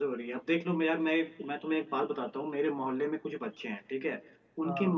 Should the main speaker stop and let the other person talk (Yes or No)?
No